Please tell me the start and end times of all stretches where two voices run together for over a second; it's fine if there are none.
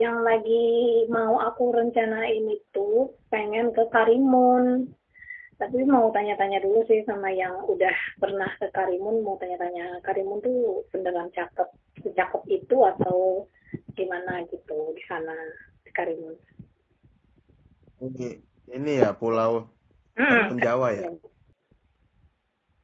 none

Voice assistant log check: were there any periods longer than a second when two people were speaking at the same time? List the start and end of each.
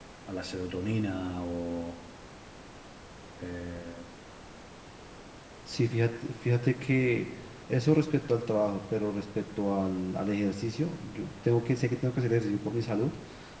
none

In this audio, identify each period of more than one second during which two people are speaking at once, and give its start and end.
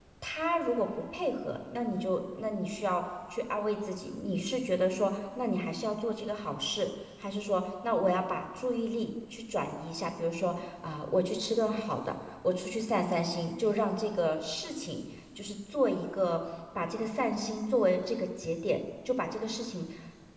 none

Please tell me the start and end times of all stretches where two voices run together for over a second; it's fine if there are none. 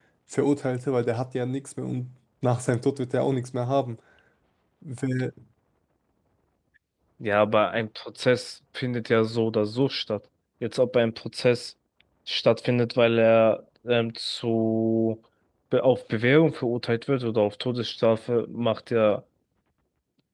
none

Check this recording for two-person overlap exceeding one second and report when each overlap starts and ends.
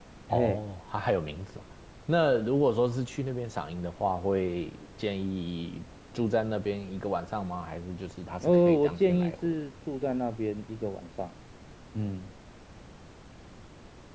8.4-9.6

